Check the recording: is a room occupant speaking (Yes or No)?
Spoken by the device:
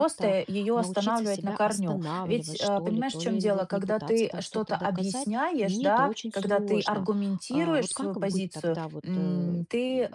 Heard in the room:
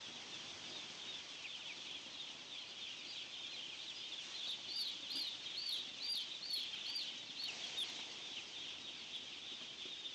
No